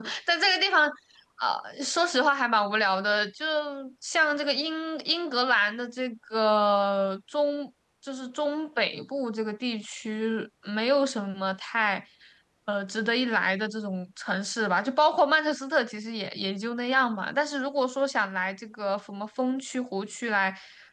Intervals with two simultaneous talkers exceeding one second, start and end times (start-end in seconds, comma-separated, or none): none